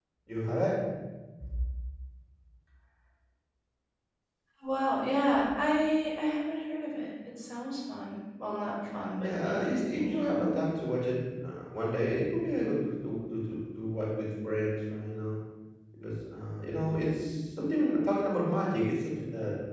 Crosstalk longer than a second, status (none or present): present